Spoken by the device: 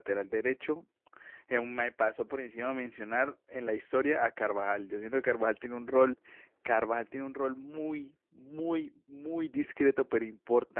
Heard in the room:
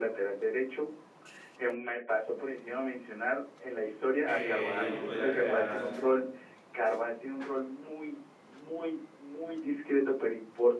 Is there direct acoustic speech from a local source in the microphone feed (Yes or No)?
Yes